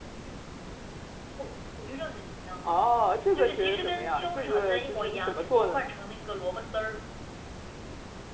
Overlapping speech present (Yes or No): Yes